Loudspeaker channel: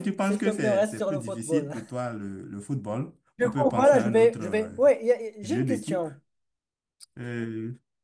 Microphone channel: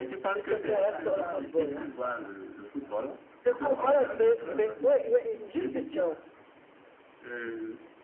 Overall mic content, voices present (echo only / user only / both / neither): both